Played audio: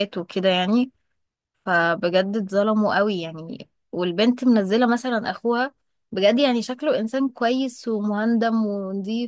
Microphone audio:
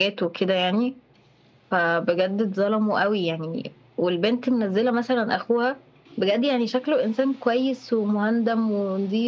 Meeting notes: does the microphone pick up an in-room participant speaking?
No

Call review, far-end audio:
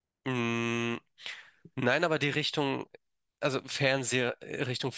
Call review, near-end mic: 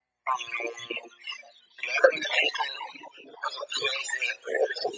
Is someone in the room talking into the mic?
No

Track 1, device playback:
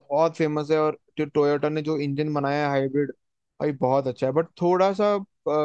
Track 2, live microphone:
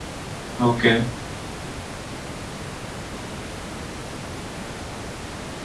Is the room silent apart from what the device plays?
No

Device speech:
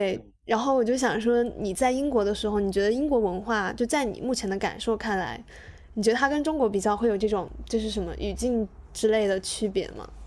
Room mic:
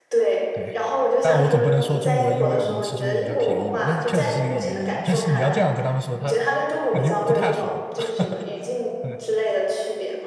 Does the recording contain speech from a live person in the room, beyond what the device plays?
Yes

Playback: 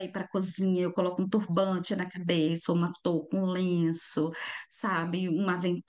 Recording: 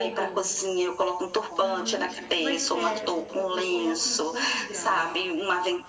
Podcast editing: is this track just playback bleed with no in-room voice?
No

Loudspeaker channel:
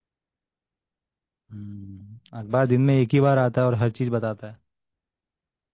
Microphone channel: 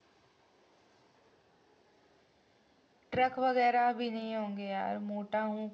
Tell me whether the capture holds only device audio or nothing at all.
No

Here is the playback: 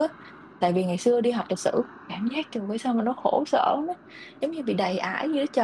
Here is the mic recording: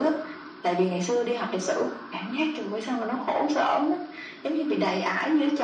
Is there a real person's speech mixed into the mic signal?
No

